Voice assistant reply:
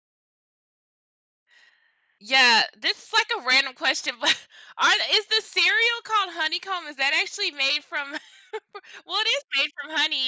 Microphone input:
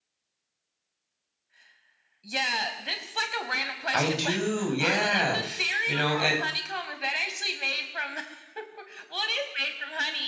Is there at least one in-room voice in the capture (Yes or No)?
Yes